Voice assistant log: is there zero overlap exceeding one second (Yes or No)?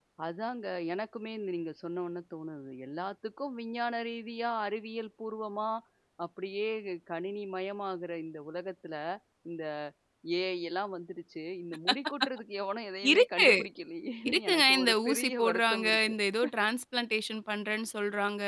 No